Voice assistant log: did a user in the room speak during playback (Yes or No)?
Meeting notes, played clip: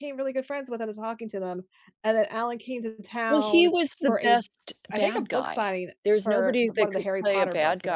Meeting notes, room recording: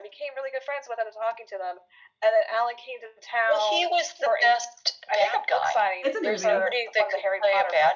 Yes